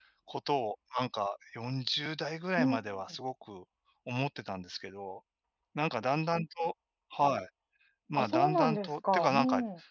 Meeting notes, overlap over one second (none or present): present